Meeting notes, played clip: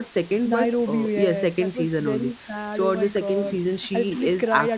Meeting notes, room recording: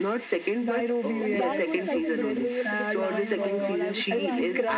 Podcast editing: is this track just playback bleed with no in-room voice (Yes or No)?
No